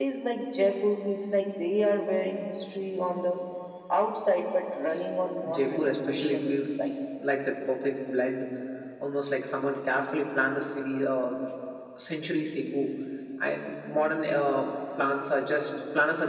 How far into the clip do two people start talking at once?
5 s

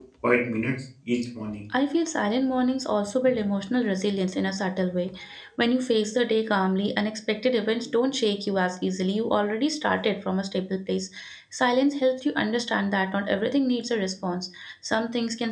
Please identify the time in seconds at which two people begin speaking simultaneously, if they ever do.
none

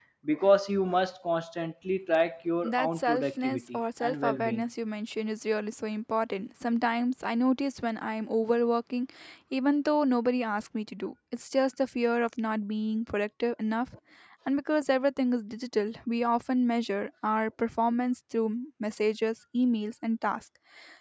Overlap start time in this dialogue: 3 s

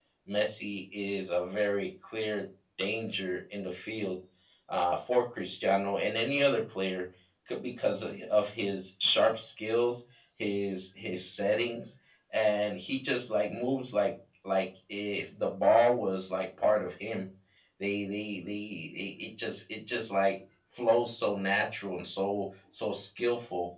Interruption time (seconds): none

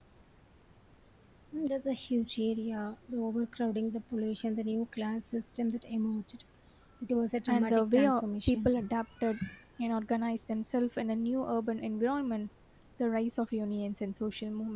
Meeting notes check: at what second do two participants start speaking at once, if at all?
7 s

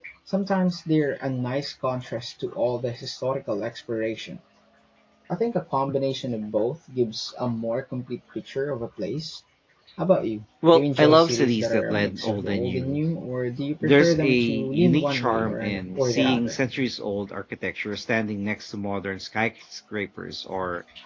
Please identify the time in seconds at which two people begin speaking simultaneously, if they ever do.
11 s

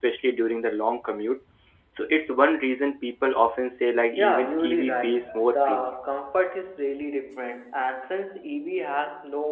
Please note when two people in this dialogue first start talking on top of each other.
4 s

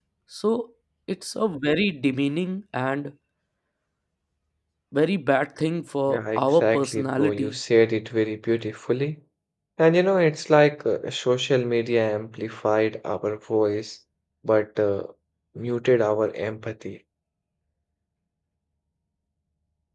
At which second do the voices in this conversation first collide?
6 s

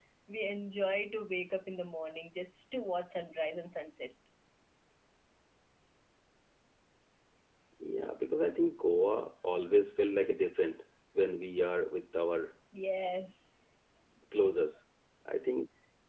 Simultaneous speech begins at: none

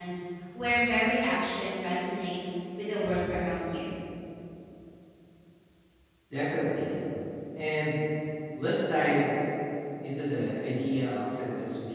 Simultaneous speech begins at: none

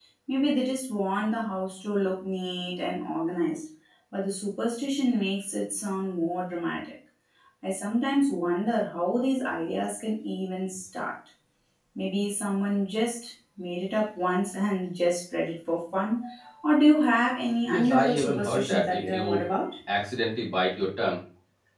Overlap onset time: 18 s

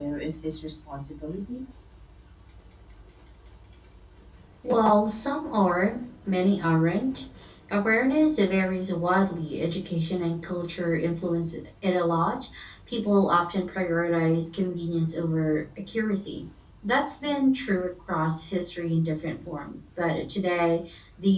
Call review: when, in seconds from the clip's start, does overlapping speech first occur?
none

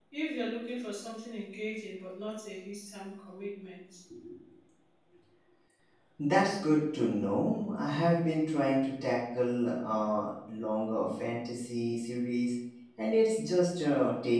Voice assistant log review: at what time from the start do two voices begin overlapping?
none

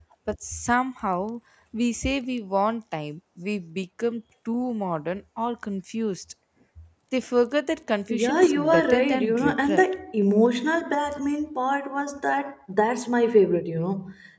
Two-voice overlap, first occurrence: 8 s

